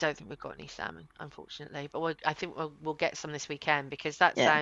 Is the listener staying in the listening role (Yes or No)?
Yes